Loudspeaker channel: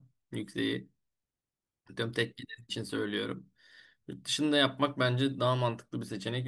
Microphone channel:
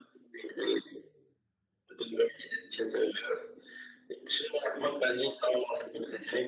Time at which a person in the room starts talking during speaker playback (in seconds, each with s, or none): none